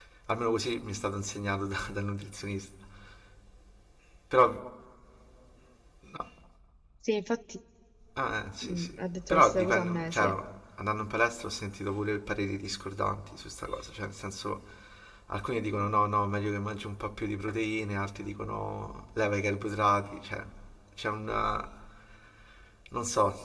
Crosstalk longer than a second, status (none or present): present